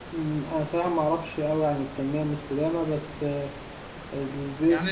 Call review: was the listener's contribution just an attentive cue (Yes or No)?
No